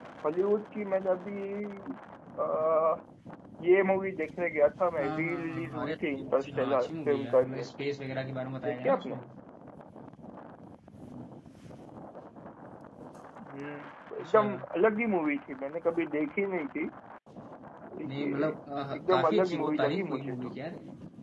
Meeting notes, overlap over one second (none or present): present